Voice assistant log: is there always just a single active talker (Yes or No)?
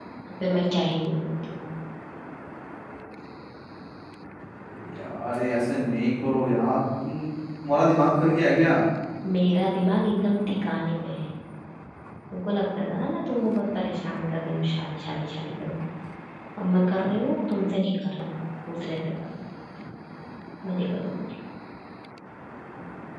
Yes